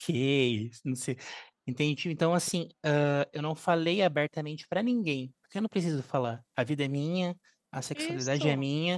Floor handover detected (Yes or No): No